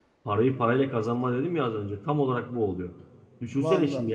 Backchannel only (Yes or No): Yes